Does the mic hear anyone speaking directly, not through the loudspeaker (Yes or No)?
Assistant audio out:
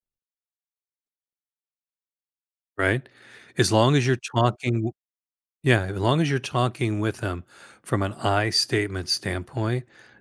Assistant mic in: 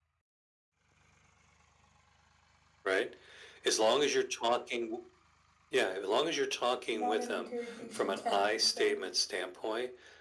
Yes